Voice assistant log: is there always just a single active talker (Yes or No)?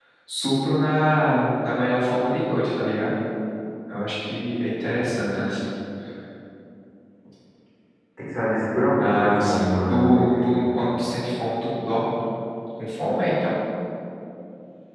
No